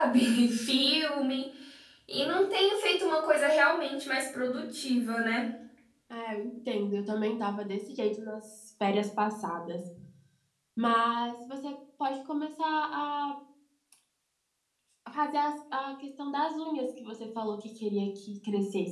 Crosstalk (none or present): none